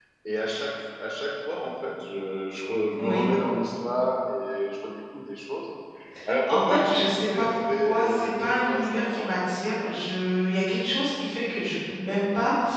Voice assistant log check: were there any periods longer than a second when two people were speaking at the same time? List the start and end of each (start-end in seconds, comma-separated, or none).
6.5-9.4